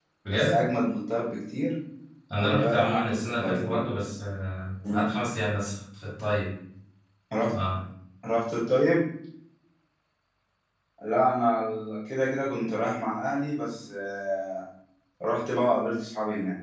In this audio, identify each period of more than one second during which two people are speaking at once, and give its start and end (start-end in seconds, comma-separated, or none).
2.4-3.8